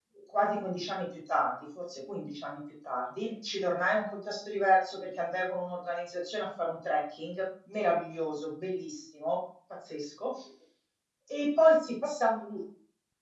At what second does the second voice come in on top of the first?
none

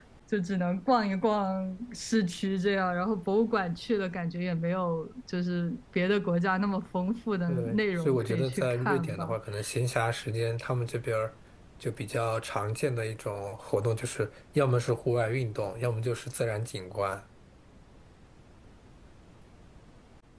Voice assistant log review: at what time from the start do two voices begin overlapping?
7.5 s

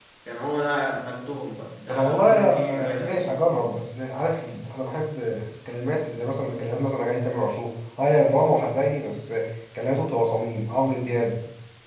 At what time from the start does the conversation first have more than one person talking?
1.9 s

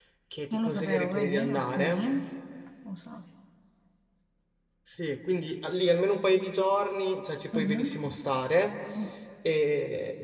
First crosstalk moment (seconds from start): 0.5 s

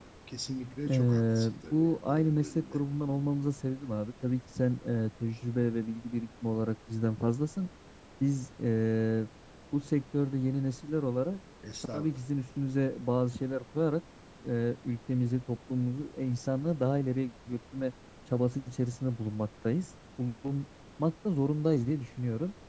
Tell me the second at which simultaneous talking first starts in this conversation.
0.9 s

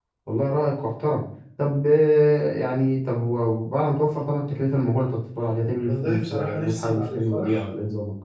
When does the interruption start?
5.9 s

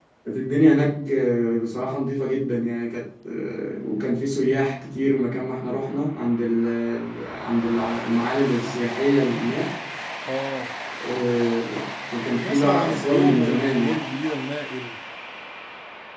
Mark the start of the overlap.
12.4 s

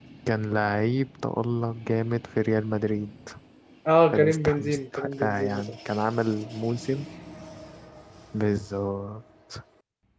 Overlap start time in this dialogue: 4.1 s

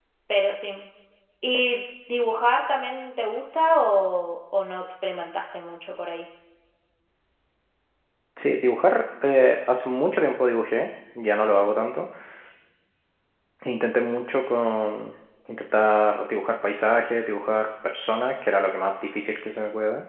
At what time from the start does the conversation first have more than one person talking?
none

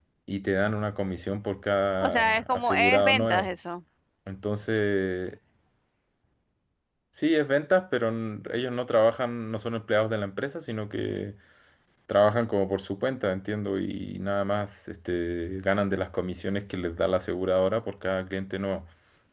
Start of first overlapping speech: 2.0 s

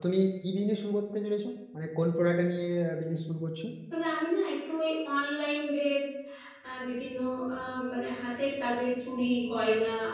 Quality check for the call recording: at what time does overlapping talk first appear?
none

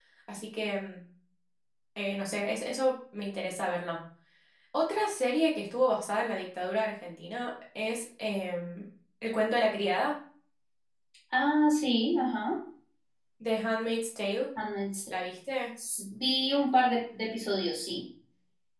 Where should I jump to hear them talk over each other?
none

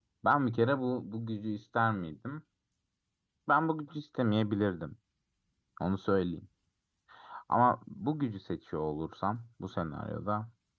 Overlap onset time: none

